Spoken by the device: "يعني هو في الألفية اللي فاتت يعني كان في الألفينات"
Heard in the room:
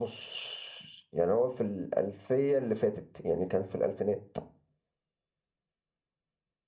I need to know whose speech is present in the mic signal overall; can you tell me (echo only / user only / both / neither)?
echo only